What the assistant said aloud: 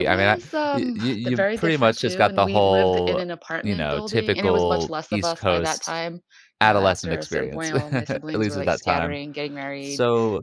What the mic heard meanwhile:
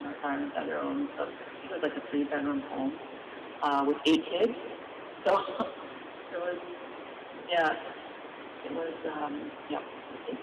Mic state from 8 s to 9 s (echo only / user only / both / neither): user only